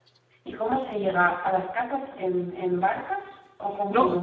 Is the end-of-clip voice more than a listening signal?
Yes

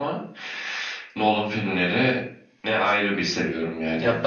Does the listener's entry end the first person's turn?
Yes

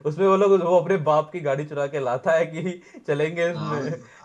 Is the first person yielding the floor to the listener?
Yes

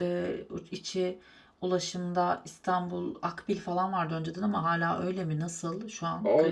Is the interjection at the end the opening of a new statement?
Yes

